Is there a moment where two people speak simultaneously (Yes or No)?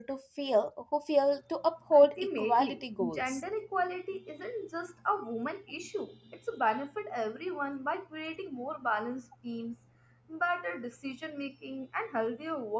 Yes